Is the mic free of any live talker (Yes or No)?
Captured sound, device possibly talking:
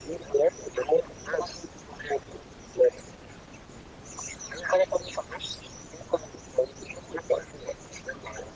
Yes